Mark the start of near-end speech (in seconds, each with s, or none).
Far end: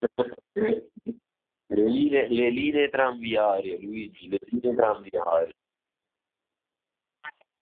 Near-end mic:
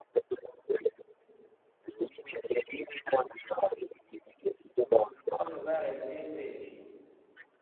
4.7 s